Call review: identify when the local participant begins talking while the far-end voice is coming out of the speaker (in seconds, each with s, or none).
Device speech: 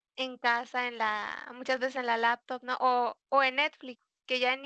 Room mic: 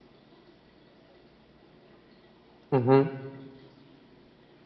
2.7 s